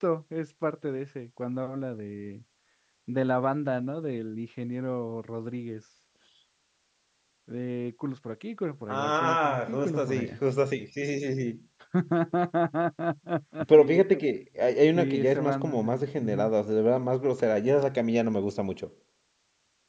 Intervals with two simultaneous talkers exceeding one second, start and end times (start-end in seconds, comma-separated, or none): 8.9-10.4, 14.9-16.5